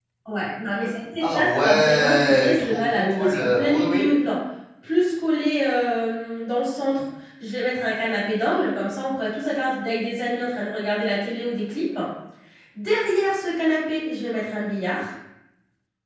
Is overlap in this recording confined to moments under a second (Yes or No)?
No